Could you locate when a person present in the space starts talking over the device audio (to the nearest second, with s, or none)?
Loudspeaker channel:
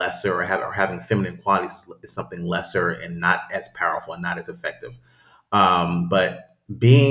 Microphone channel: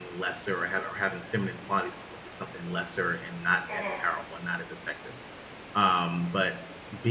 4 s